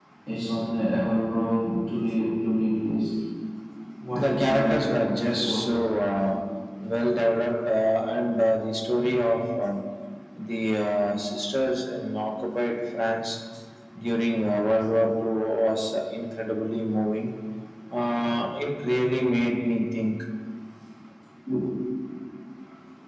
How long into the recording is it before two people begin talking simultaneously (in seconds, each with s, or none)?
4.2 s